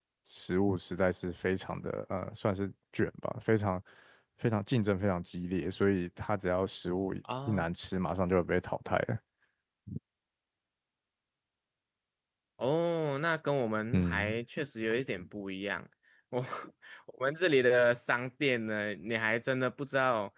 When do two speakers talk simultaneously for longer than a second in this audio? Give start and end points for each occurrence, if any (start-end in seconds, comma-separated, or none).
none